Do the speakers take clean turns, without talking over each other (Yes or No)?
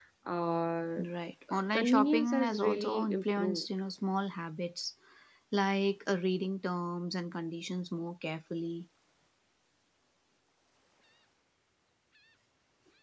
No